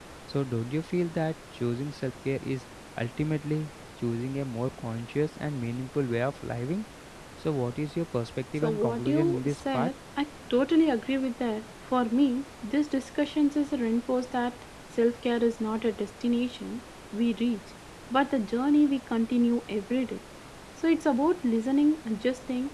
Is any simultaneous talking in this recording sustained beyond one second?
Yes, from 8.6 s

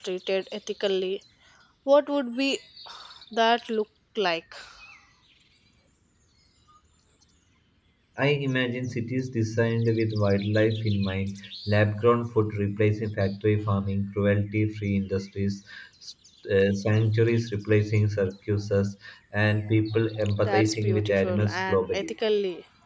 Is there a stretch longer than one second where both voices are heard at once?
Yes, from 20.4 s

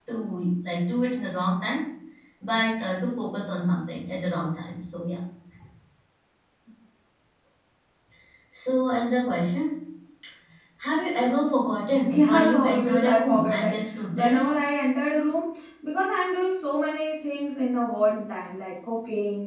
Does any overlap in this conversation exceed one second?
Yes, from 12.0 s

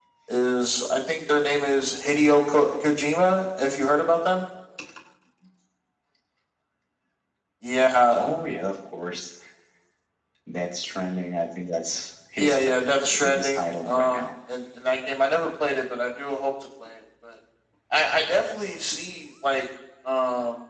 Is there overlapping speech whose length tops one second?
Yes, from 12.4 s

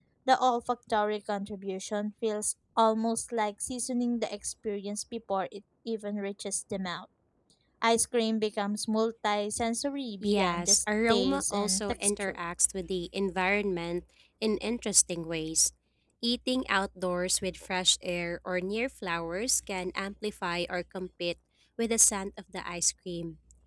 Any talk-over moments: Yes, from 10.2 s

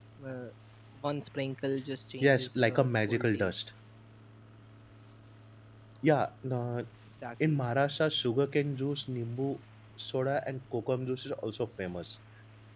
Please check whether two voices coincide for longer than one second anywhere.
Yes, from 2.2 s

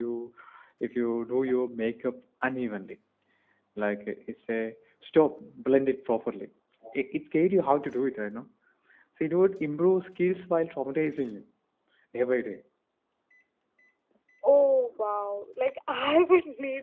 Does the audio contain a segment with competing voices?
No

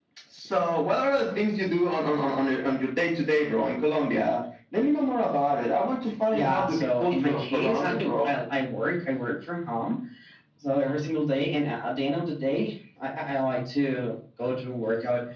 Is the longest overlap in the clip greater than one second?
Yes, from 6.3 s

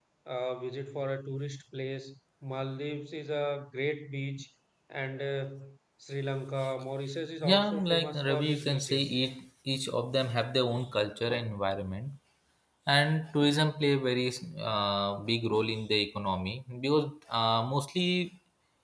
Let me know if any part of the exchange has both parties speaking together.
Yes, from 7.4 s

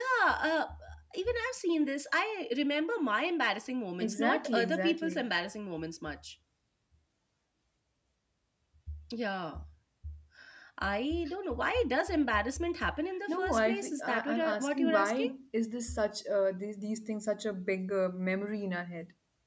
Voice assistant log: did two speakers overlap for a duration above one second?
Yes, from 4.0 s

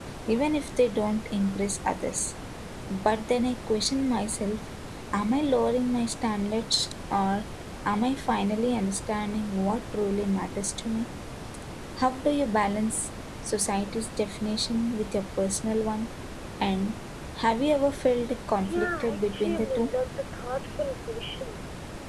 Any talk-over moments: Yes, from 18.6 s

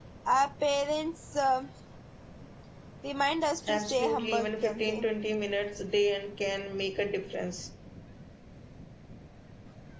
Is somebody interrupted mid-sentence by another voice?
Yes, from 3.7 s

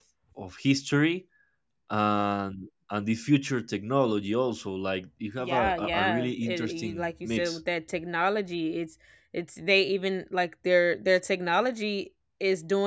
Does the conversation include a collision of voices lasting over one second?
Yes, from 5.4 s

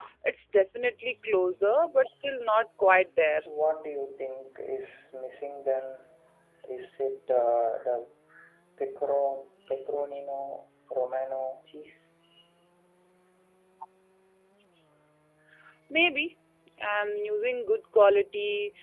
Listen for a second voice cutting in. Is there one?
No

